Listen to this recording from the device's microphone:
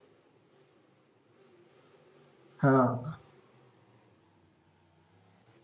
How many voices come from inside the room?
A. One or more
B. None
A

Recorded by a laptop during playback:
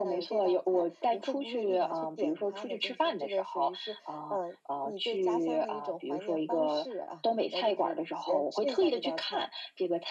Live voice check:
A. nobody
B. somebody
A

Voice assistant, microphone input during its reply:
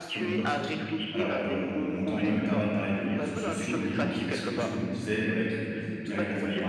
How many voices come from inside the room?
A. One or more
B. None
A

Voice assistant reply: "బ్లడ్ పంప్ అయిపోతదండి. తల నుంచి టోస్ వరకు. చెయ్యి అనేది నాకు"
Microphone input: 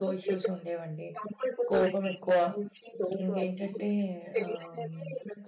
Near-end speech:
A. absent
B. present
B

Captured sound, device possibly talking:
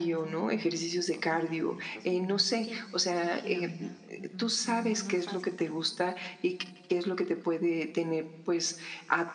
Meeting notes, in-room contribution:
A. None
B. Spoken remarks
B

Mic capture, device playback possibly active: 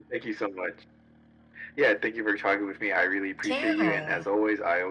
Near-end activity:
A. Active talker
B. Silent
A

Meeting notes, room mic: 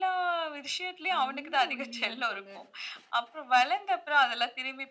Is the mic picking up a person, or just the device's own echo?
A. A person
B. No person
A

